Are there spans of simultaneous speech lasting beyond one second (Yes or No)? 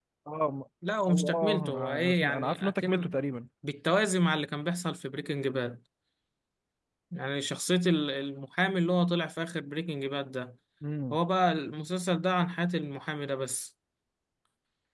Yes